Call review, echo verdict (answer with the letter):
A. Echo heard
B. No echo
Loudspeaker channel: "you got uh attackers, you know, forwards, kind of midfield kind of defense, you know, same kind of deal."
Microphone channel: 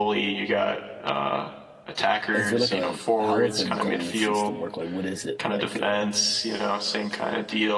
A